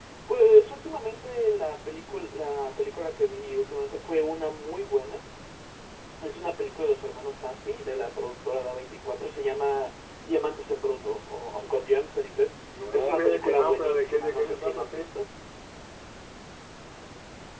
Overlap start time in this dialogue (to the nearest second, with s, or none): 13 s